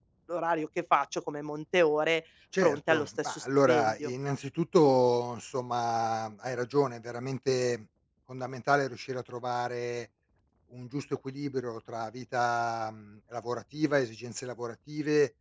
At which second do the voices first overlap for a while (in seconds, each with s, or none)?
2.5 s